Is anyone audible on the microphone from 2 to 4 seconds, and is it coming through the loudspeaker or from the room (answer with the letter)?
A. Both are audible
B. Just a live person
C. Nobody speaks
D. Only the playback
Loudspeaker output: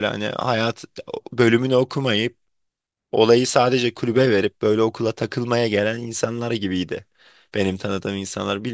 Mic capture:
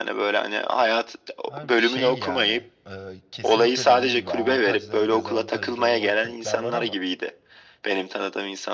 A